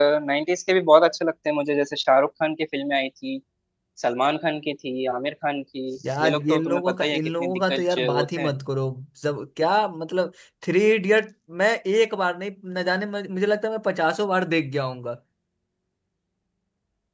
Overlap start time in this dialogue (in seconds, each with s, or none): 6.0 s